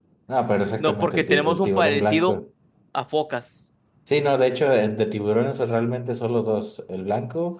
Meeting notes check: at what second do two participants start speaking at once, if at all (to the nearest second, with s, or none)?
1 s